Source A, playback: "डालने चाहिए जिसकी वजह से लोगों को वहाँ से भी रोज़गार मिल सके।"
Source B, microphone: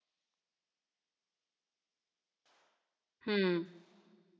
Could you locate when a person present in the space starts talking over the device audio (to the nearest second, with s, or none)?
3 s